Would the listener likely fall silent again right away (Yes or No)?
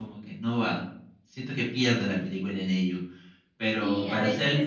No